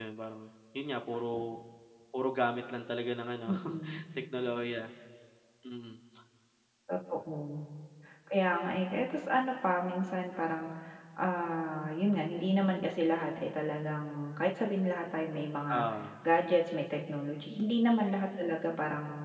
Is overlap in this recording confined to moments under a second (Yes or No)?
Yes